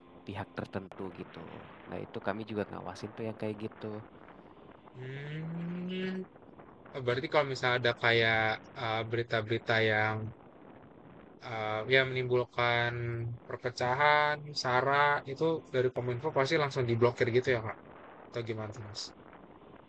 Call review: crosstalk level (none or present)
none